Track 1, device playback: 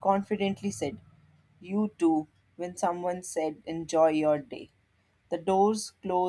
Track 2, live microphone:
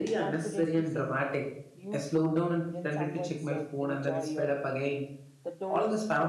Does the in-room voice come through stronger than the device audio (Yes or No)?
Yes